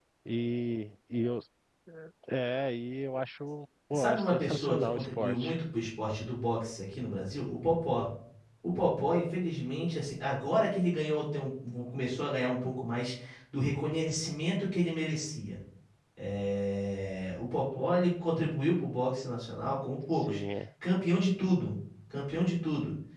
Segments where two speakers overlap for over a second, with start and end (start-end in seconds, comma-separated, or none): 3.9-5.6